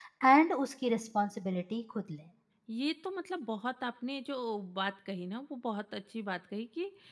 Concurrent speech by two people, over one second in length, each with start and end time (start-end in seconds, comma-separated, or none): none